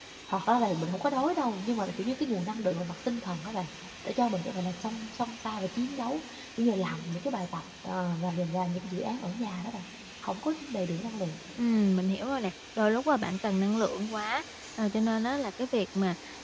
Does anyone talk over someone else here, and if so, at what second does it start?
none

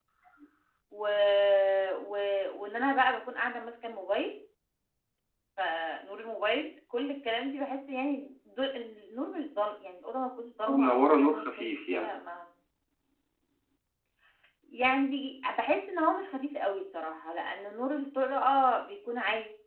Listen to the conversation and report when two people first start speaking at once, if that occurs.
10.6 s

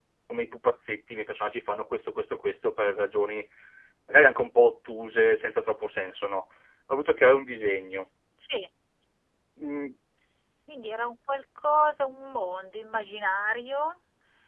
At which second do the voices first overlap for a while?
none

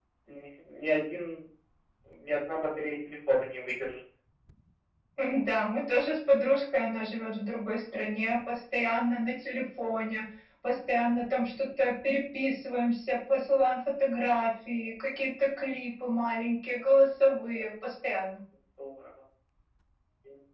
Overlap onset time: none

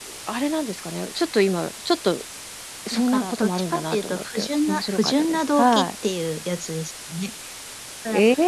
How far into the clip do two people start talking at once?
2.9 s

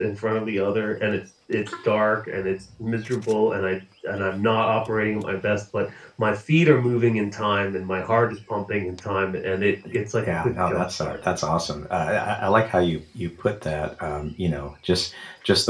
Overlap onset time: 9.8 s

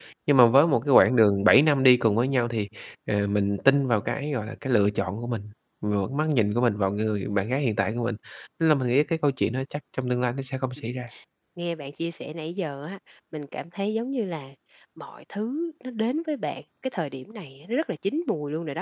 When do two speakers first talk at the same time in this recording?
none

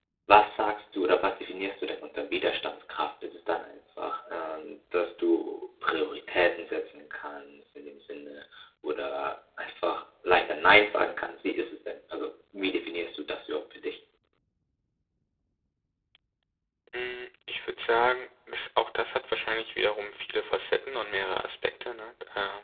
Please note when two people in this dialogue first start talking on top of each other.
none

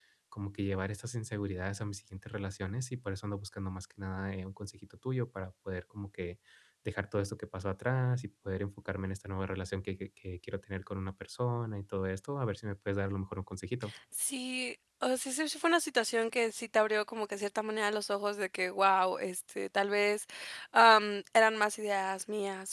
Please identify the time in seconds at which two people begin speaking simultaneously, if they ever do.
none

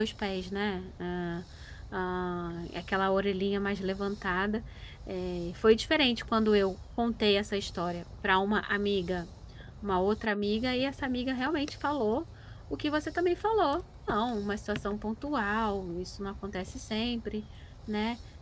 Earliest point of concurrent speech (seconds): none

